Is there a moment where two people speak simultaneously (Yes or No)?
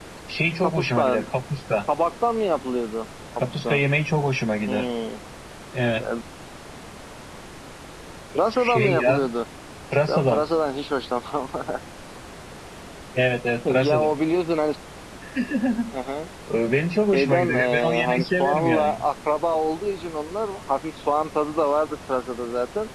Yes